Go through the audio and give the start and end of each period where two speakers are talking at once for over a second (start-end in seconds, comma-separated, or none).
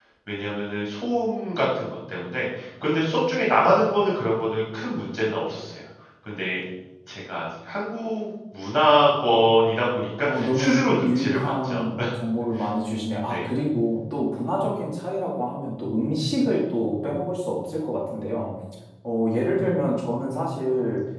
10.3-11.8